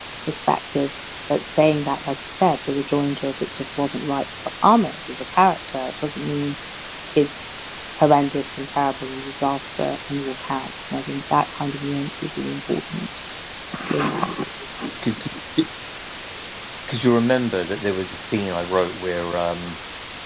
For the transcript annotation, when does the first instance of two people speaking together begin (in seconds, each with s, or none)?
none